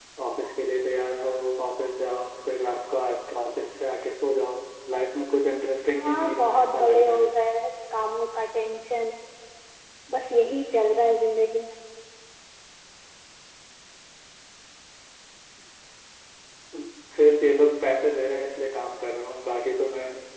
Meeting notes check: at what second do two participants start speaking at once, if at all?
6.0 s

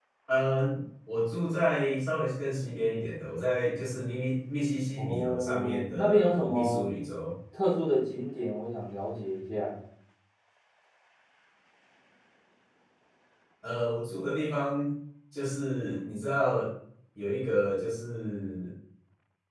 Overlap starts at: 5.0 s

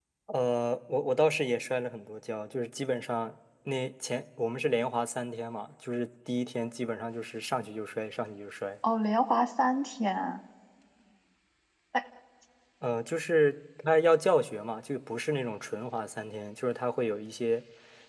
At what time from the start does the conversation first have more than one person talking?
none

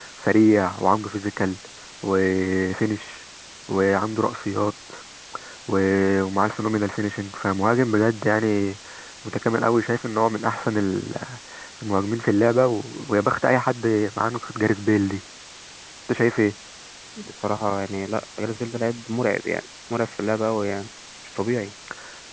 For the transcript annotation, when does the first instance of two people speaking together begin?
none

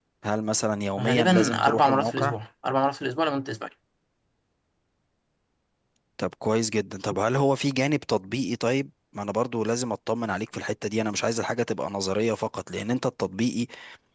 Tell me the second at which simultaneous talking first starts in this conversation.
1.0 s

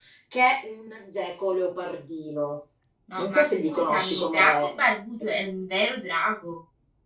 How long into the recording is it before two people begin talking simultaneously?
3.2 s

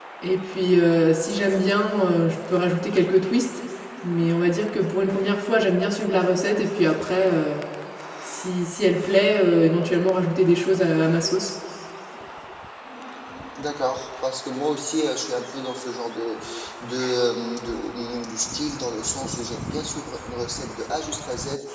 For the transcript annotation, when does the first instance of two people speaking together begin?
none

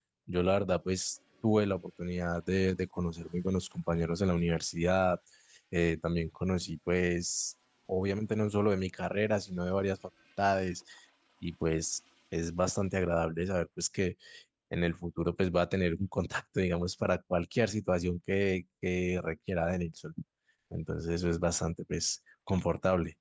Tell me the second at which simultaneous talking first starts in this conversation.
none

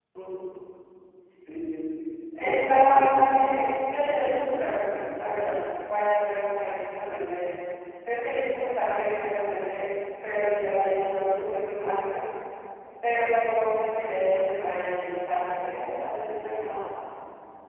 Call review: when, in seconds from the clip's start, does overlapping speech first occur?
2.4 s

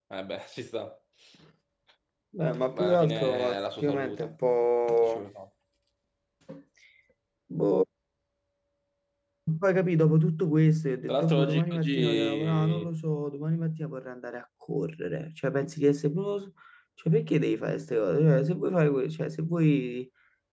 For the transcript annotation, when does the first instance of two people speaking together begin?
2.4 s

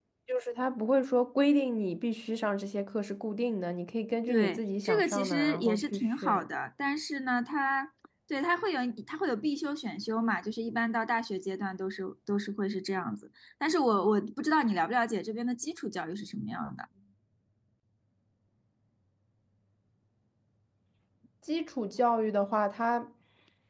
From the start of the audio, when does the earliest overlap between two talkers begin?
4.3 s

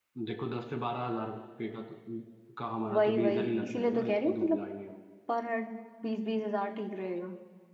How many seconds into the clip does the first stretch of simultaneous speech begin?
2.9 s

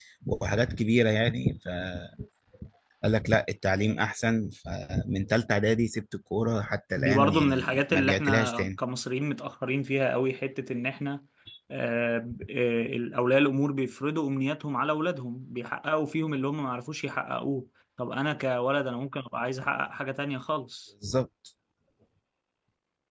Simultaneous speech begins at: 7.0 s

